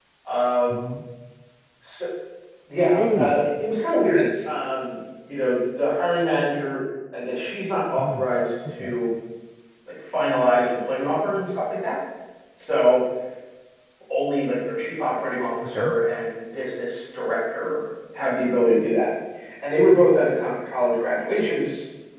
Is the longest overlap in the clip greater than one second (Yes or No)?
No